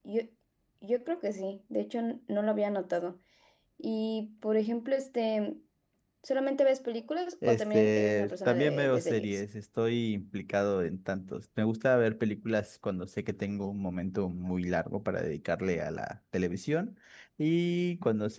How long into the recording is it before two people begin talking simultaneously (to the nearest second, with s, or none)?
7 s